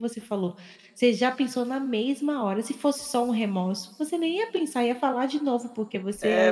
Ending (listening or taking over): taking over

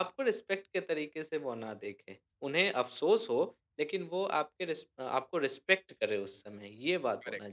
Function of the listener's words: taking over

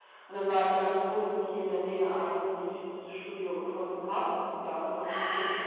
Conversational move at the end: taking over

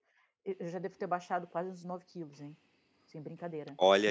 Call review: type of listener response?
taking over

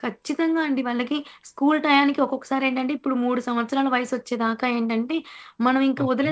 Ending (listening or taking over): listening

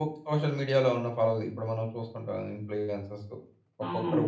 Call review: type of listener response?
listening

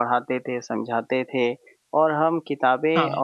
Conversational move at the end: listening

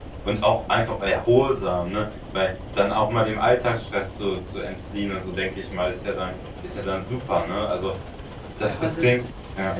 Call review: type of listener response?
taking over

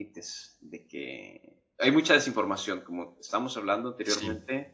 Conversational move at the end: listening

